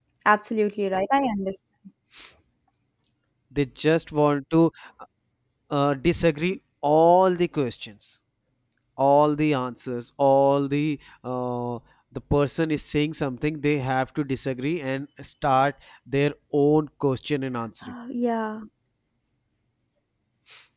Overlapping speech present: No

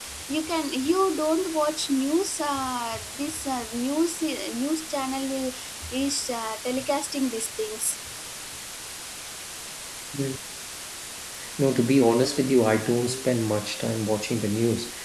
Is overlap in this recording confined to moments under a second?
Yes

